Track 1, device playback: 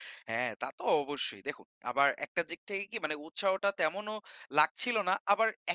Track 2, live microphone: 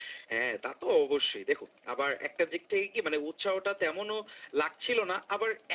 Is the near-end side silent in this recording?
Yes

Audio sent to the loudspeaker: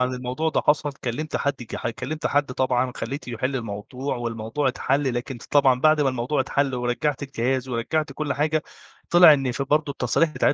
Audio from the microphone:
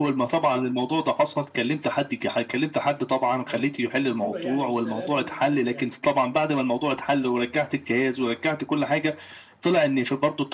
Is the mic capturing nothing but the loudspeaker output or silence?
No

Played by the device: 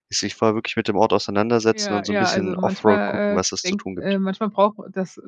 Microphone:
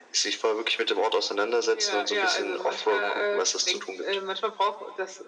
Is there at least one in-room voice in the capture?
No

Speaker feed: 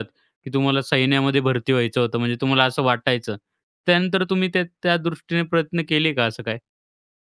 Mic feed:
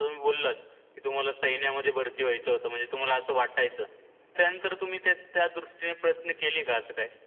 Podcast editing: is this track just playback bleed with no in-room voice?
Yes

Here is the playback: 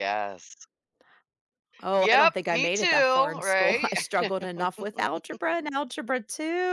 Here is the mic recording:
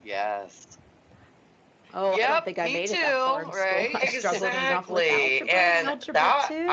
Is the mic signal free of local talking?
No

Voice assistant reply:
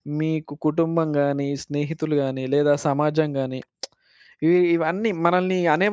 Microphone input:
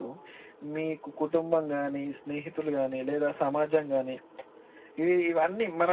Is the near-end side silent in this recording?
Yes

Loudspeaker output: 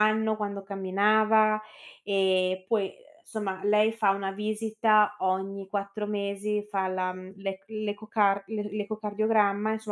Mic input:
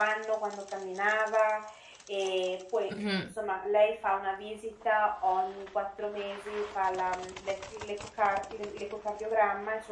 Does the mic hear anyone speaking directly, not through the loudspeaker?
Yes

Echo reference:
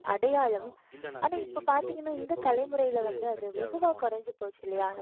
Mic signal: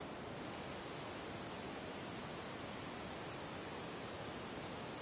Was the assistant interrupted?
No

